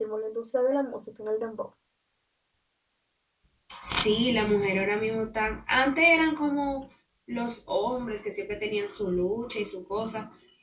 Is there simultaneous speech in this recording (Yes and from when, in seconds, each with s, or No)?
No